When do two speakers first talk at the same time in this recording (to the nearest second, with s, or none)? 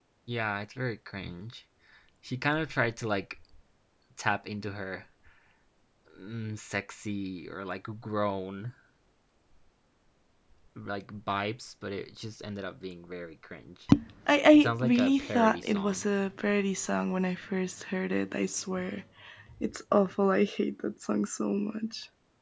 15 s